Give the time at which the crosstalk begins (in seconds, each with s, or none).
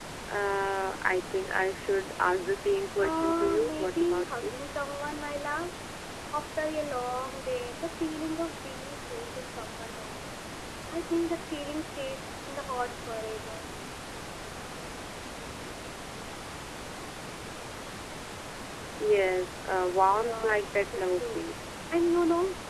3.0 s